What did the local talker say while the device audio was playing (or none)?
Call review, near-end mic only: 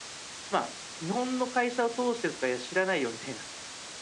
none